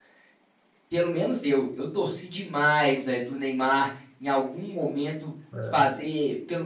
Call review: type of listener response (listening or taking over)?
listening